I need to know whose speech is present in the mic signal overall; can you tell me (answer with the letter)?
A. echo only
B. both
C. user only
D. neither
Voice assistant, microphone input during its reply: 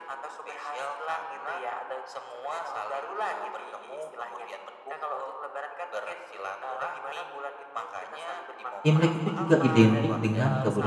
B